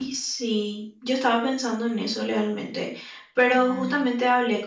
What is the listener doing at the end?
listening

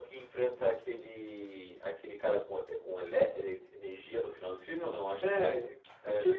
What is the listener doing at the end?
taking over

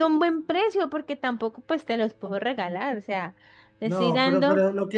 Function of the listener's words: taking over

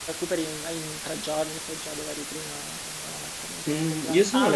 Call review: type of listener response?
taking over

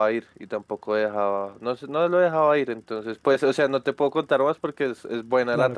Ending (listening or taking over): listening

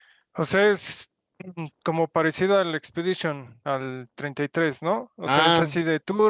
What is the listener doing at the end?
listening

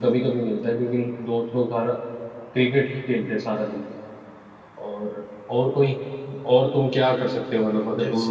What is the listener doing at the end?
taking over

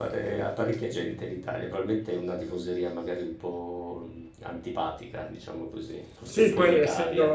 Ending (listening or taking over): taking over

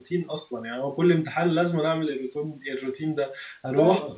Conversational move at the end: listening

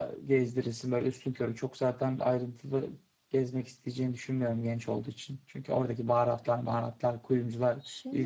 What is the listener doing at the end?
taking over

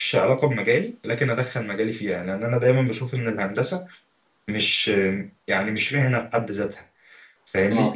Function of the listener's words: listening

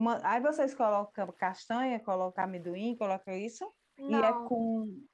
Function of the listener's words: listening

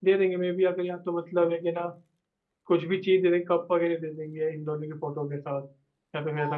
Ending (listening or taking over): taking over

